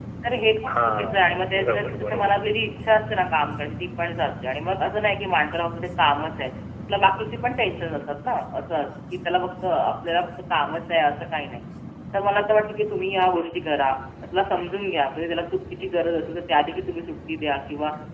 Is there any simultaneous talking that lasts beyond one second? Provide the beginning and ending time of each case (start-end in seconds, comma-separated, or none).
0.7-2.3